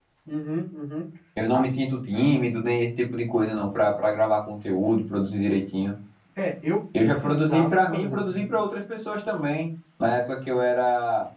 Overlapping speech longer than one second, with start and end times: 7.0-8.5

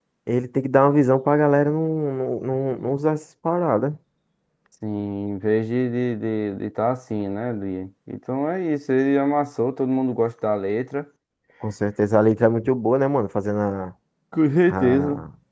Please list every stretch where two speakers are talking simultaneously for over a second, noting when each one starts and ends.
none

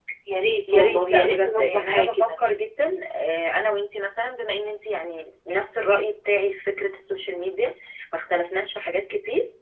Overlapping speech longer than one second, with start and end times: 0.7-2.3

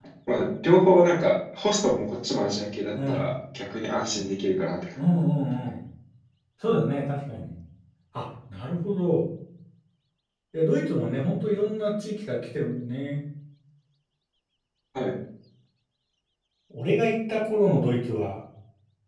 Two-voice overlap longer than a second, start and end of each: none

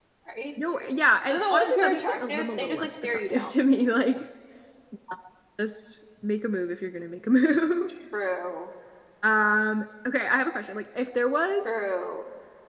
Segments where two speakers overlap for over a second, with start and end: 1.3-3.5

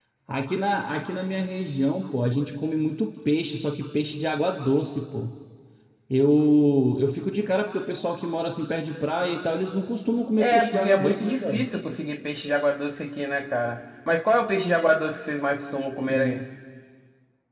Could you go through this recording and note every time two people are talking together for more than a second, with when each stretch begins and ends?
10.4-11.7

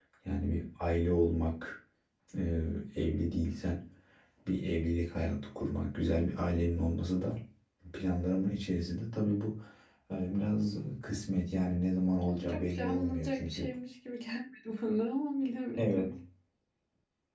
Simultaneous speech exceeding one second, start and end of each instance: 12.4-13.7

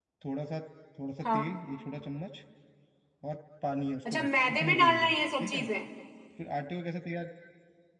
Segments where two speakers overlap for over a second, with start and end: 4.1-5.6

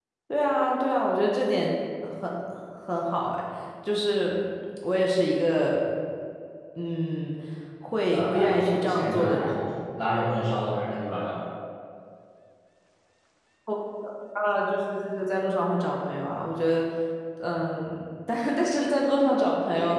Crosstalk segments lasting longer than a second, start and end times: 8.1-9.6

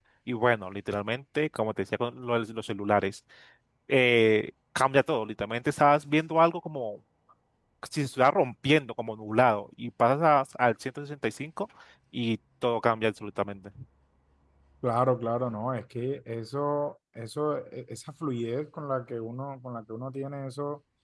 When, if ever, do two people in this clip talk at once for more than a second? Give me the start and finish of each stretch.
none

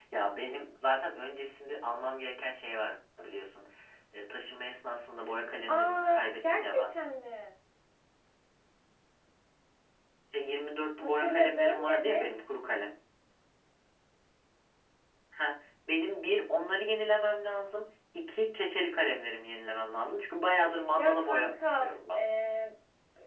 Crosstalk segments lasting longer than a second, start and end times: 5.7-6.9, 11.0-12.2, 21.0-22.2

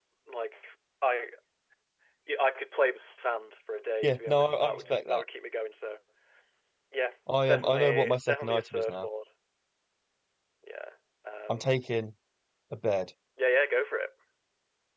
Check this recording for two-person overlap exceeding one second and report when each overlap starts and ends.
4.0-5.2, 7.5-9.1

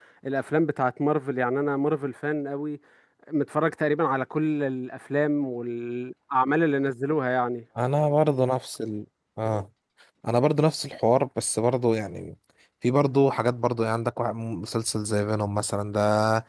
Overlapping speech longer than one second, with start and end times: none

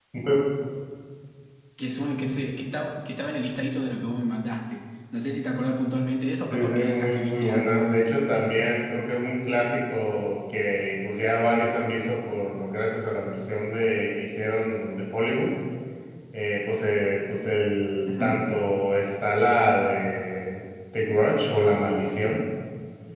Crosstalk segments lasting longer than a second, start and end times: 6.5-7.9

